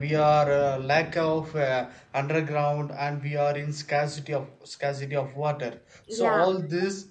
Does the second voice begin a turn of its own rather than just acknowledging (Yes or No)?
No